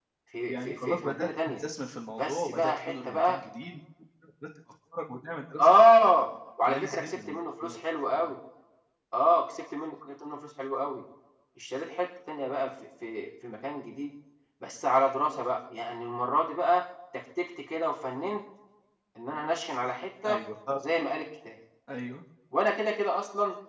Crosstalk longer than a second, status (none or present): present